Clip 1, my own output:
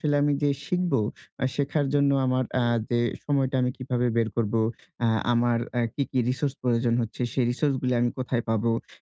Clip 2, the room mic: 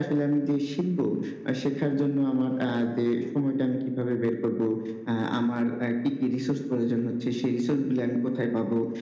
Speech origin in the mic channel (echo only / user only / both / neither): echo only